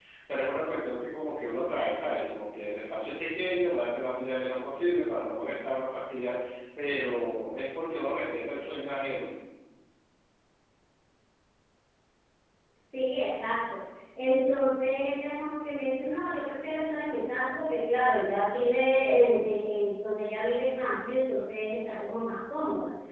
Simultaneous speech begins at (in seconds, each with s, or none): none